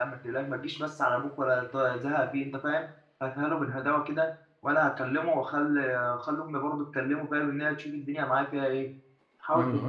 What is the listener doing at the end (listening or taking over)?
listening